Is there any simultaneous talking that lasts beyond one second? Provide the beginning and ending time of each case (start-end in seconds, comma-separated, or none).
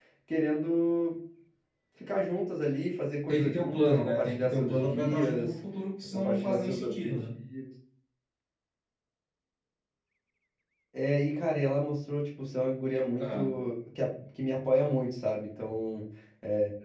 3.3-5.5, 6.1-7.3